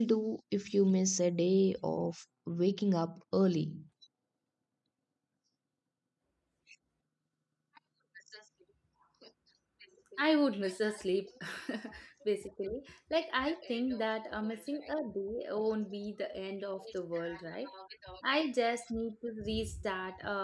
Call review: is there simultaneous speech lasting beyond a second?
No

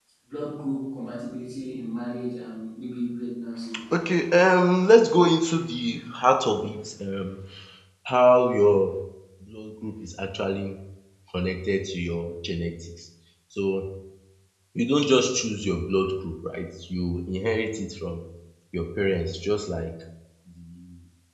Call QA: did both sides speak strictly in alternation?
Yes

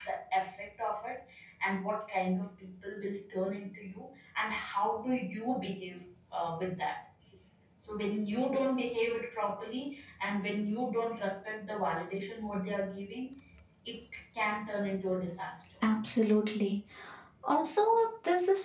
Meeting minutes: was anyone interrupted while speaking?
No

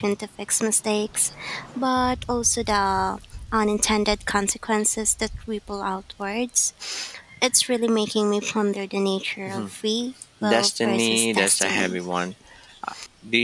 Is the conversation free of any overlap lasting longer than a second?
No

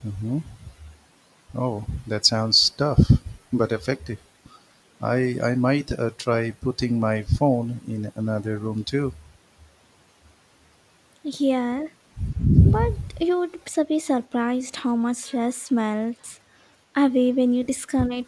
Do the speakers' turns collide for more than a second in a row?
No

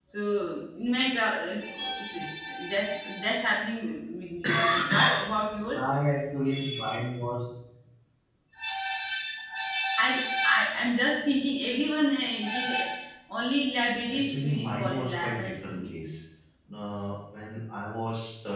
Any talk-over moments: Yes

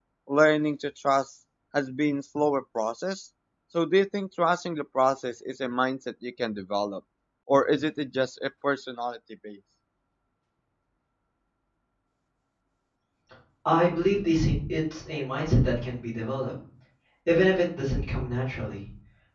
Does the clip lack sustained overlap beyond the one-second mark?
Yes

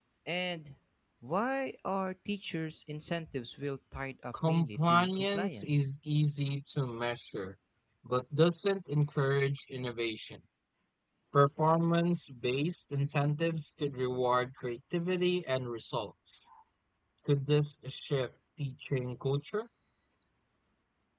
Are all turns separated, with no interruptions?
No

